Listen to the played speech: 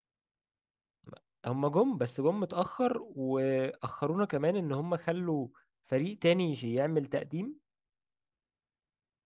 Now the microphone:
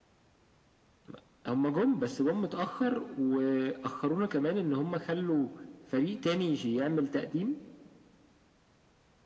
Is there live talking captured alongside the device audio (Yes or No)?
No